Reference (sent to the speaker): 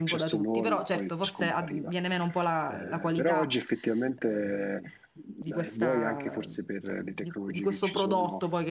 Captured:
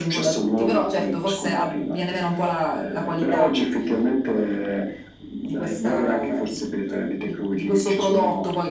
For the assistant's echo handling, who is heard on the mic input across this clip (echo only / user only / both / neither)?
echo only